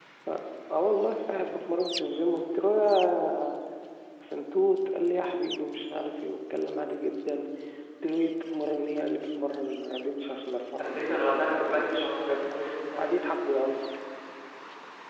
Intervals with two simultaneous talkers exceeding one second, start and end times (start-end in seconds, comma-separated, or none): 10.9-12.5